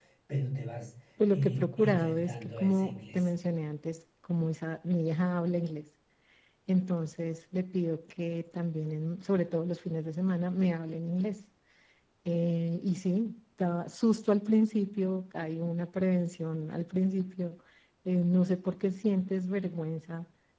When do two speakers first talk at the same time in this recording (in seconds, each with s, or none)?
1.3 s